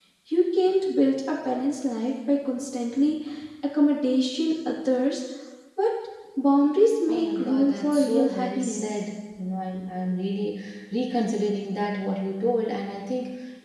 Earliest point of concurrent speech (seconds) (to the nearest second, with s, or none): 7 s